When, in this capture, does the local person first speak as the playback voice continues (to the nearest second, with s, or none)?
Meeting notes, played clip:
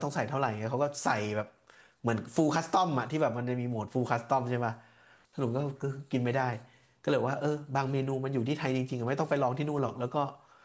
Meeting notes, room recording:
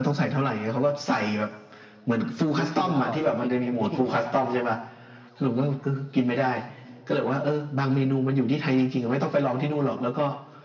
3 s